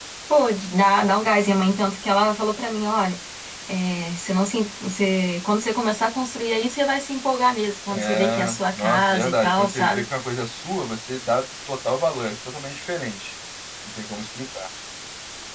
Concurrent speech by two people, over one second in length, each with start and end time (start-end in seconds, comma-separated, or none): 7.9-10.0